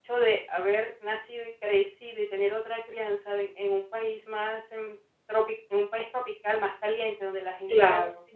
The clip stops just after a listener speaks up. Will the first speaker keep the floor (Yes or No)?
Yes